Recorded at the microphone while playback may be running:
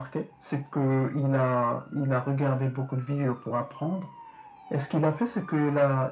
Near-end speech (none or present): none